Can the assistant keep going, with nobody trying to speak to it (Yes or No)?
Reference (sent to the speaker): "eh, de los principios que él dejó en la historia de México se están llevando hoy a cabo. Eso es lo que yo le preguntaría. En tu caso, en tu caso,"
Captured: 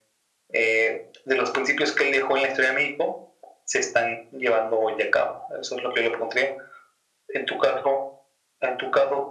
Yes